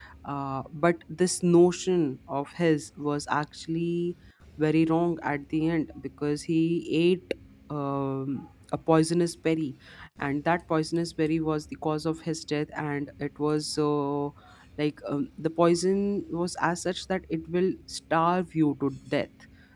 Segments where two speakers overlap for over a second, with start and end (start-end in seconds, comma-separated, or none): none